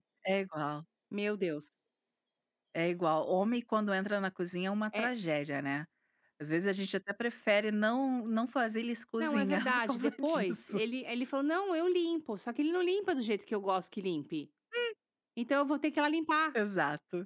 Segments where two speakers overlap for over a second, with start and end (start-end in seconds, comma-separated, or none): 9.2-10.8